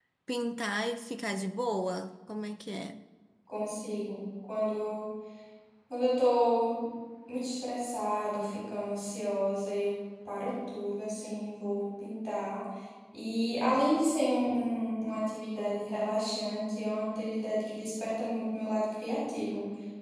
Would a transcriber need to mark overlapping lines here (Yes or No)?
No